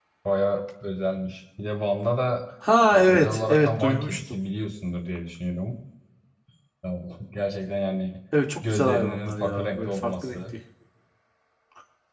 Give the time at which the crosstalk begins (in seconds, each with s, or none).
2.9 s